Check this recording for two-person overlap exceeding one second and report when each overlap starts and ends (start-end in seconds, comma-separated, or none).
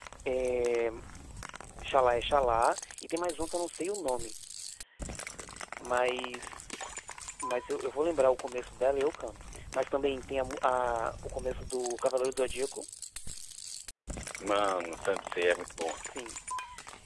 none